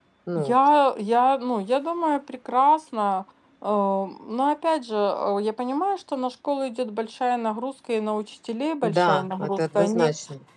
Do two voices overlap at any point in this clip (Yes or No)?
Yes